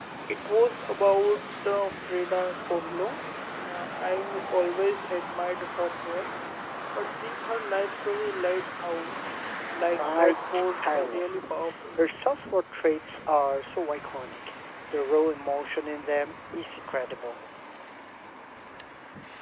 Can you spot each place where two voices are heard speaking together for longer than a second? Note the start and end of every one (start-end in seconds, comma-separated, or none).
9.9-11.3